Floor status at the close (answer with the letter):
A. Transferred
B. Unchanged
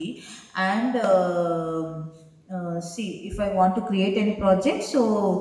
B